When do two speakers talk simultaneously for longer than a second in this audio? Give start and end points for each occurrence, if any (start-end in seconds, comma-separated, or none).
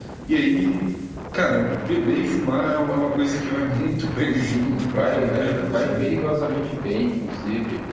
4.3-6.0